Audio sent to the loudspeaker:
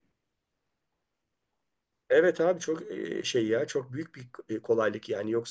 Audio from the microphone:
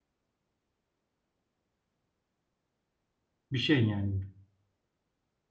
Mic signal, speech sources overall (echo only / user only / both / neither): user only